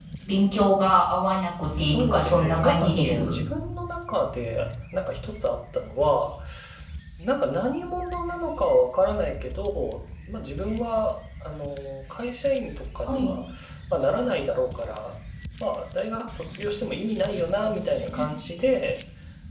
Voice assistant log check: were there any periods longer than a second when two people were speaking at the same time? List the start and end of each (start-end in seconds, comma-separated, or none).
1.8-3.4